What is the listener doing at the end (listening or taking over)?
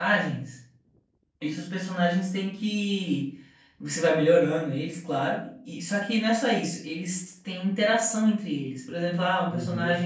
listening